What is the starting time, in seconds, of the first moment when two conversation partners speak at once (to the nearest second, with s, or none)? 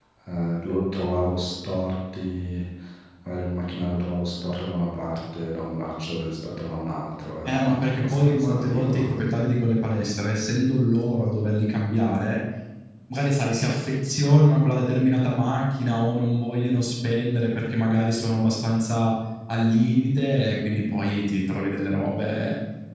7 s